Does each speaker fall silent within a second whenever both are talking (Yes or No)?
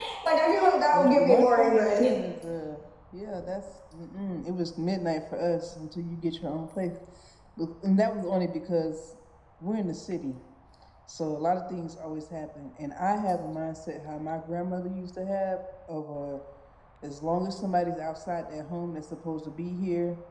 No